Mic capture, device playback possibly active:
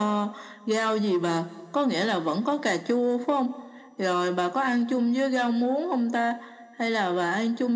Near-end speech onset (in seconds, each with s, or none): none